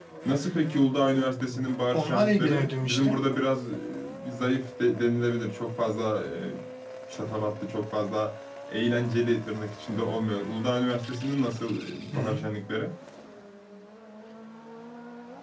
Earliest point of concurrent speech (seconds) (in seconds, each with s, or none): 1.9 s